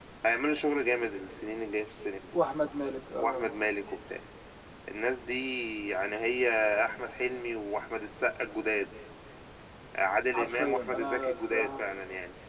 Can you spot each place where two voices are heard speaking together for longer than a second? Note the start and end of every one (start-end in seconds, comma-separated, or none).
10.3-11.8